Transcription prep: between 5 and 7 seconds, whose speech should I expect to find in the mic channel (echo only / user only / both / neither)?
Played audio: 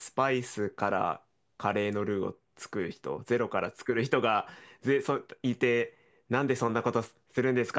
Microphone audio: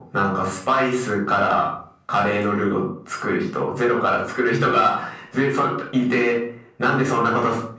echo only